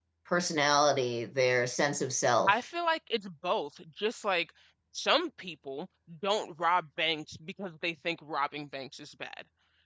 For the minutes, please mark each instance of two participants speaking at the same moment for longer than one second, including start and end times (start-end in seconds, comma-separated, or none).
none